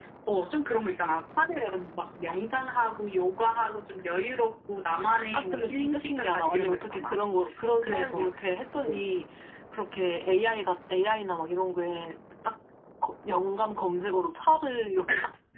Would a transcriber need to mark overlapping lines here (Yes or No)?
Yes